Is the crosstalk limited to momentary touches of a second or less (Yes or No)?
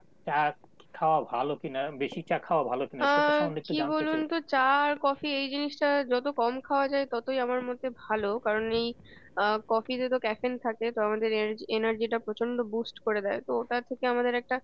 No